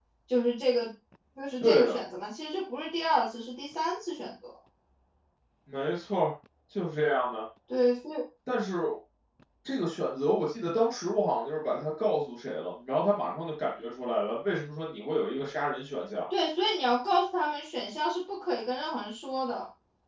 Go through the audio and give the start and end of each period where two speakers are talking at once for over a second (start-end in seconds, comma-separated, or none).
none